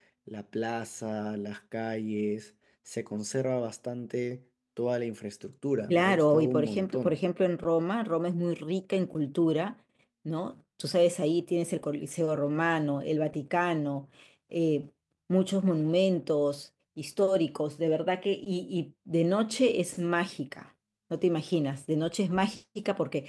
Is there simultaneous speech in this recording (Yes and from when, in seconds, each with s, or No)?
Yes, from 5.9 s